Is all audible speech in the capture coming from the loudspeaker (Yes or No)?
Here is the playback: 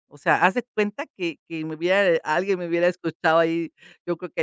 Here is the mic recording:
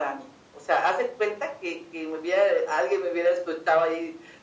Yes